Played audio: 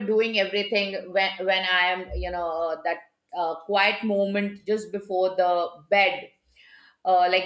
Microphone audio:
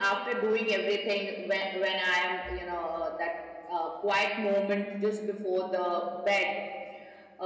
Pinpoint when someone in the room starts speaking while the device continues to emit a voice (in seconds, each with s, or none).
none